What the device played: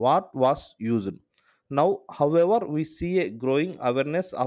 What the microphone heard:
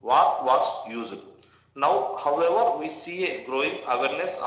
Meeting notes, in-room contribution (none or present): none